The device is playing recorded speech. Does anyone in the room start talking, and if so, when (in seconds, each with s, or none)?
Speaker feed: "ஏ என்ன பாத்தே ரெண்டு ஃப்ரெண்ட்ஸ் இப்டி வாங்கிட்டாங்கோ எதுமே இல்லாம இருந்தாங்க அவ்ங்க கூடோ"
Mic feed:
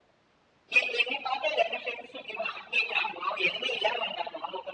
none